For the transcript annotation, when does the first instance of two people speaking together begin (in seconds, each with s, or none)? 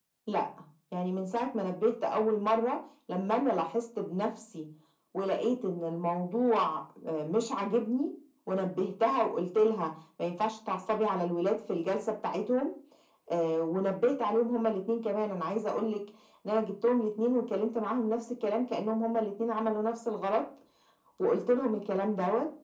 none